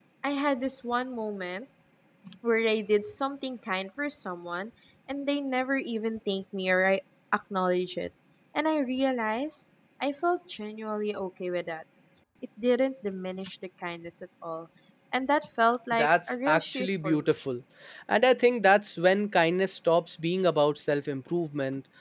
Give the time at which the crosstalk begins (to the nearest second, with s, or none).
16 s